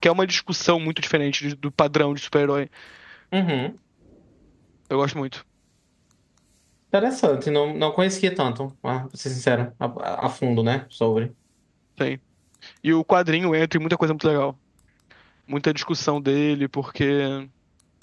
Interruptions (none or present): none